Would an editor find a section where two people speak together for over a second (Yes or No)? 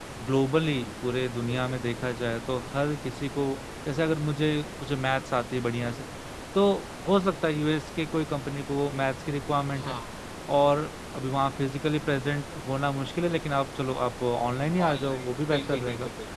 Yes